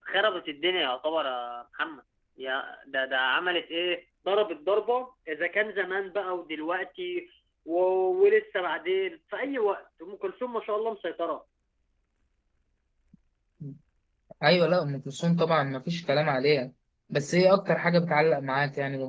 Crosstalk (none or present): none